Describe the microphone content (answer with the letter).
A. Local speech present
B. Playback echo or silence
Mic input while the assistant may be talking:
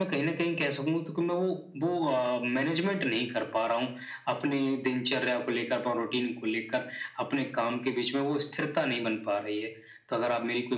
B